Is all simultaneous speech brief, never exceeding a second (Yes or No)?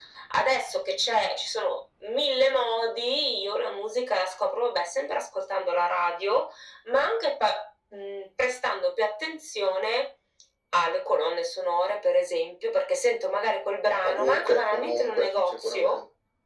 No